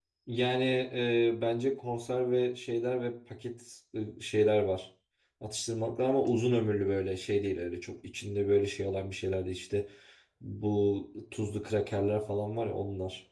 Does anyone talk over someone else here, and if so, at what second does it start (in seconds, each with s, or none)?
none